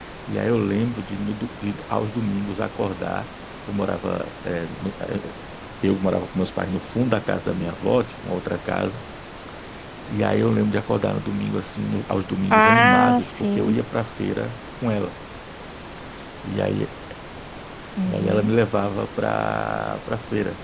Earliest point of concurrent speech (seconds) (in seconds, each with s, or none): 12.5 s